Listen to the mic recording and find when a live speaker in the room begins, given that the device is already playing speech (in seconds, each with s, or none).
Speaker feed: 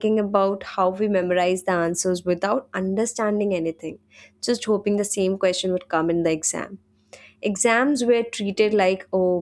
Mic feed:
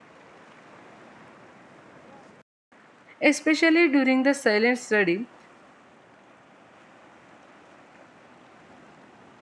3.2 s